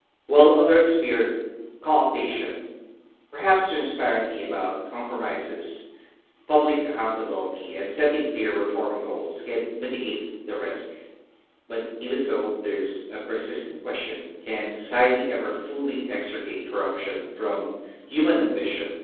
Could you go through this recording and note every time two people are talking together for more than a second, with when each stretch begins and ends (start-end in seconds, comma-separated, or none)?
none